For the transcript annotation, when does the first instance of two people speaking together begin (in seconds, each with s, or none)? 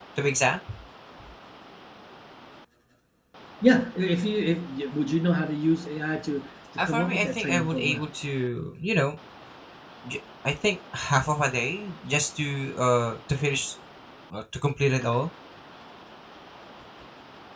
6.8 s